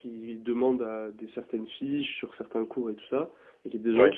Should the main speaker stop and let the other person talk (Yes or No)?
No